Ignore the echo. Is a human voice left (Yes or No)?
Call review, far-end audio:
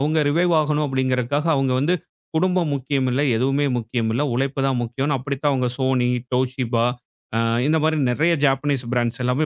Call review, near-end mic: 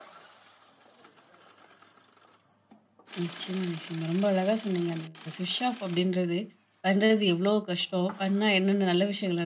Yes